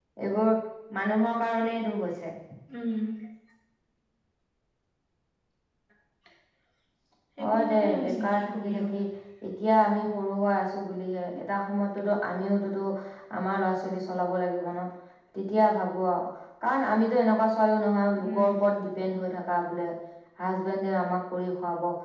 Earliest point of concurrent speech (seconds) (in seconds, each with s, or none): 7.5 s